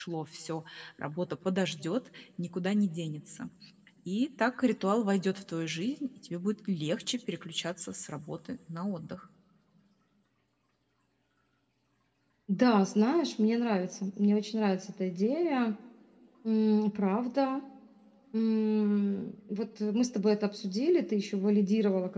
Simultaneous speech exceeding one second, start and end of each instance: none

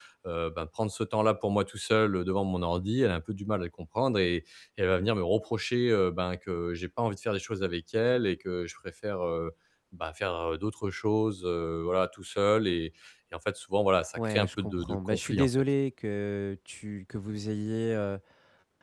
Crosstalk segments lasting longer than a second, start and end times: 14.2-15.5

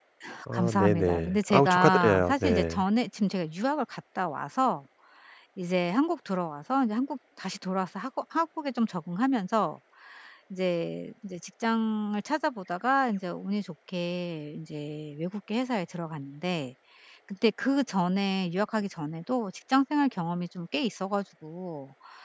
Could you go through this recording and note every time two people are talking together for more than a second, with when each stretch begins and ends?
0.5-2.8

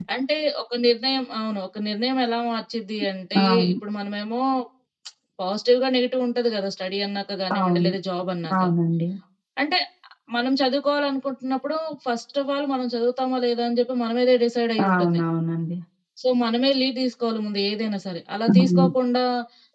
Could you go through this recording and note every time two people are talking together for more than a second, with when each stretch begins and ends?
none

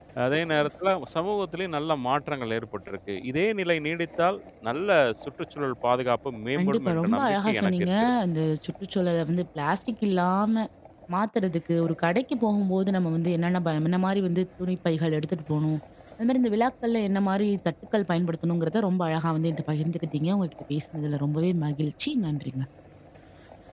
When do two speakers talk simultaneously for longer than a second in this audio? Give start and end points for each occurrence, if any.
6.6-8.1

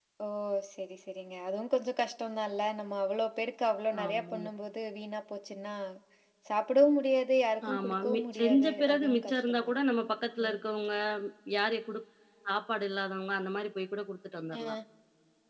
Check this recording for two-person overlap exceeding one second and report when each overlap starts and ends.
7.7-9.8

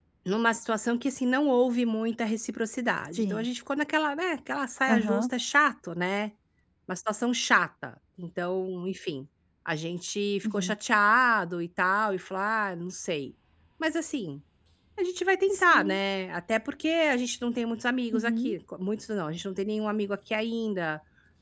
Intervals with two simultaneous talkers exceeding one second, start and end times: none

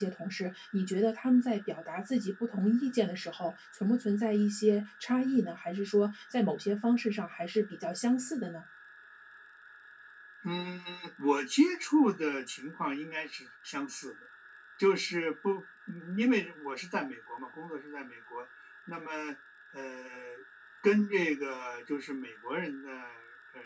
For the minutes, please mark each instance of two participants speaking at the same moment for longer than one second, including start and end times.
none

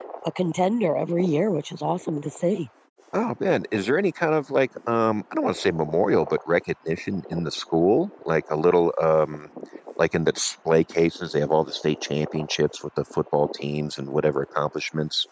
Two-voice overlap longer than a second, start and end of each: none

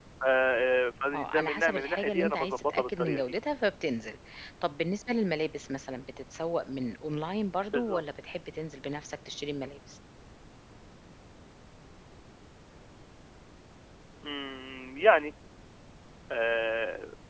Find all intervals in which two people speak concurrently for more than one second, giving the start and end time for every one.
1.1-3.4

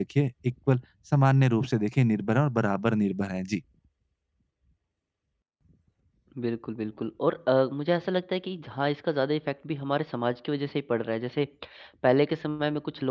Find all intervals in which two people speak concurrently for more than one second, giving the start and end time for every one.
none

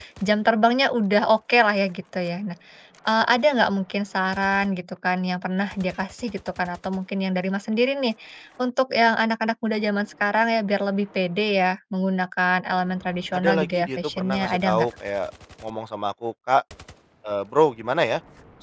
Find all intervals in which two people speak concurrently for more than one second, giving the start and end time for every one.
13.4-14.9

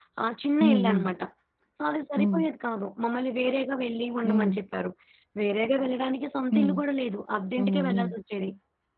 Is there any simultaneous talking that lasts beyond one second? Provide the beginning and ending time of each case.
none

